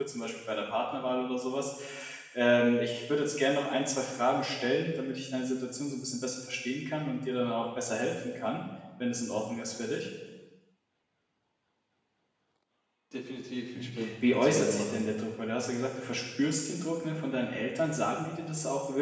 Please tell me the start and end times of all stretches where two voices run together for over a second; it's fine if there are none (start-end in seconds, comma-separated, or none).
13.8-15.0